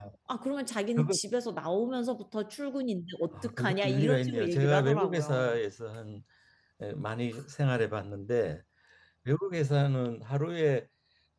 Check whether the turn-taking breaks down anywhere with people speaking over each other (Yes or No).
Yes